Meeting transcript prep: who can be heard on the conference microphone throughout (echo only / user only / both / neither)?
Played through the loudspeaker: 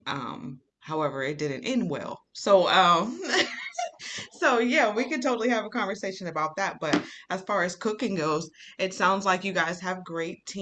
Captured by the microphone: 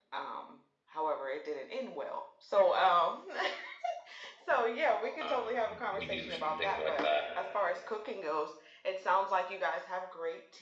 both